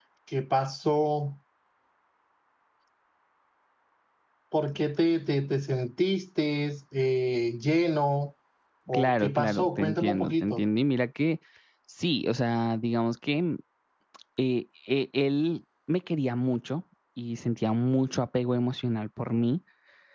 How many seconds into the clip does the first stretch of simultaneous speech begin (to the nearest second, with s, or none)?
9 s